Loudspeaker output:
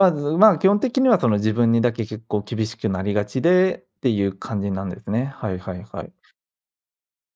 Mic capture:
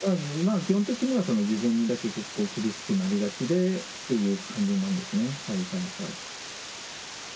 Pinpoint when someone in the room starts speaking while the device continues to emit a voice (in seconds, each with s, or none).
none